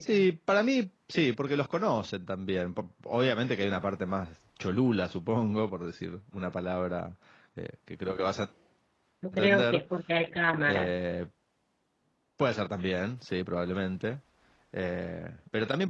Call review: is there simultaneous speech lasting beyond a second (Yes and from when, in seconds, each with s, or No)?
No